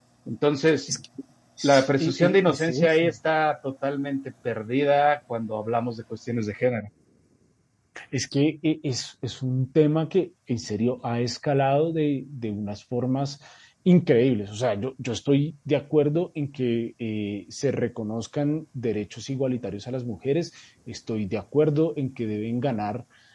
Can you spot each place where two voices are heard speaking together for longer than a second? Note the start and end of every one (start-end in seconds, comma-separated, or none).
1.6-3.1